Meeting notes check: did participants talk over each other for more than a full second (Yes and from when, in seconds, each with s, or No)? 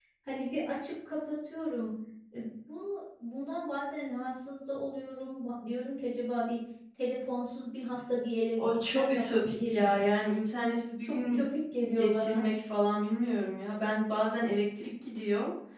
Yes, from 8.6 s